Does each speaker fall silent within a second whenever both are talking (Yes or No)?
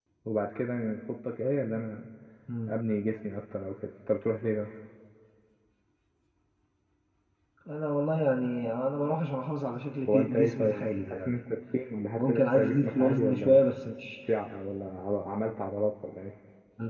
No